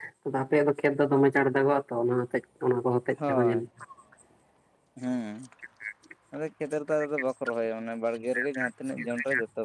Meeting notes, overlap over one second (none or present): none